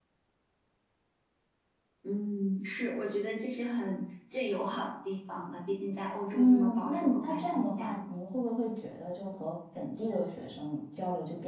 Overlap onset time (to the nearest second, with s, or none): 6 s